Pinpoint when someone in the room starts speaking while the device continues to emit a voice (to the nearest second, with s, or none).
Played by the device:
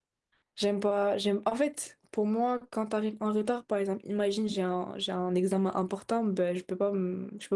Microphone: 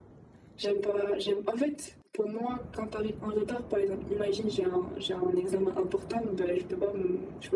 none